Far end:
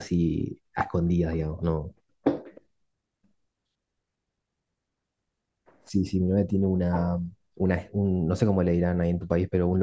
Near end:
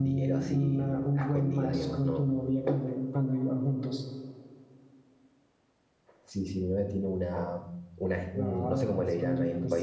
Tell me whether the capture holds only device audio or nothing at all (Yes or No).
No